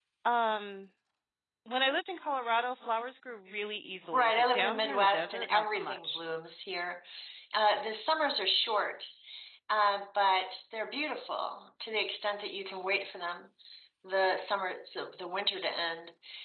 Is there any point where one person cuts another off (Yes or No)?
Yes